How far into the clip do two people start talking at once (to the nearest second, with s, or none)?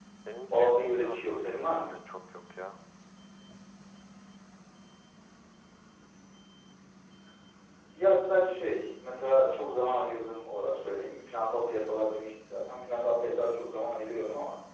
1 s